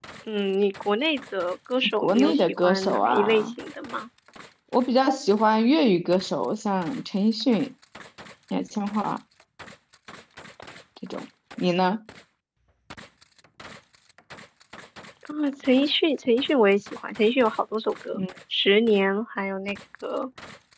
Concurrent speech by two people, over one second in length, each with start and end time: 2.0-3.5

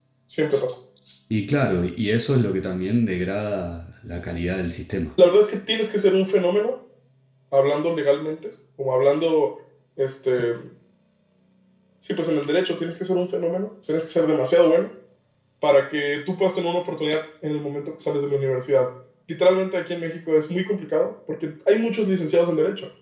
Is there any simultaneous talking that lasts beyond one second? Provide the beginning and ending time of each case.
none

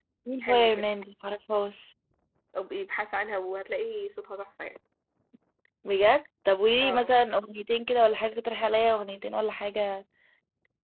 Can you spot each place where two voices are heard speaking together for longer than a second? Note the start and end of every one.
none

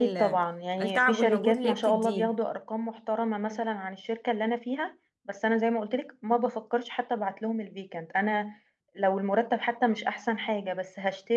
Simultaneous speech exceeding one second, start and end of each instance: 0.8-2.3

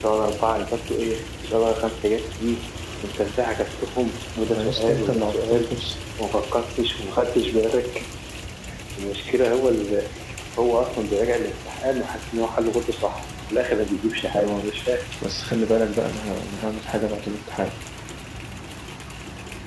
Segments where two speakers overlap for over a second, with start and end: 4.5-5.8

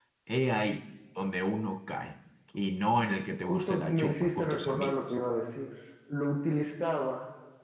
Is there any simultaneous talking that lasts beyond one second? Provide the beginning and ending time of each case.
3.4-5.0

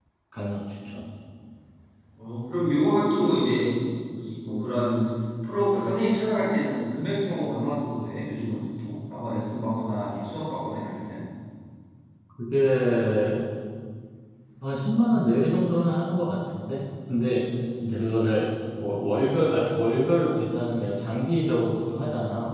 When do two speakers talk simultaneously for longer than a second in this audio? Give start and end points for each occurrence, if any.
none

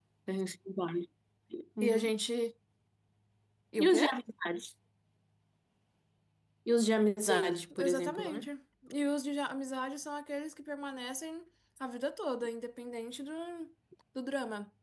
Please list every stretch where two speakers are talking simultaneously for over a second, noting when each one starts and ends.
7.2-8.5

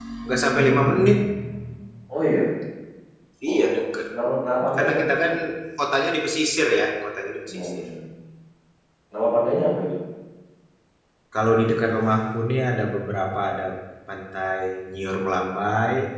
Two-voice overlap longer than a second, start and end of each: none

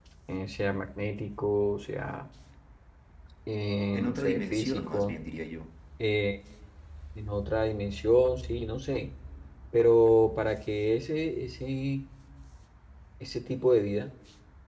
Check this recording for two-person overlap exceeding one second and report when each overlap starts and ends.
3.9-5.2

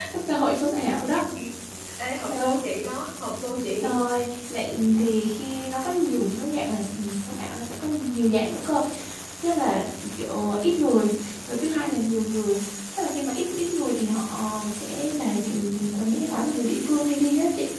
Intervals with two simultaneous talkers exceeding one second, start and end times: none

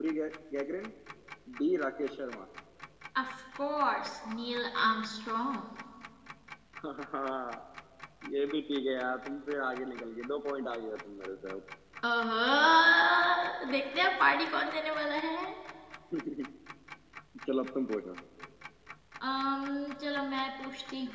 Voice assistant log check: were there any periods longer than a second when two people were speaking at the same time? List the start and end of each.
none

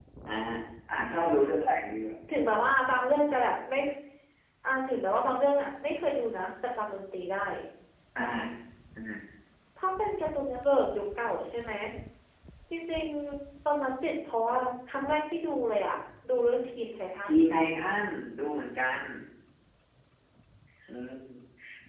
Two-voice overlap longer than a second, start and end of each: none

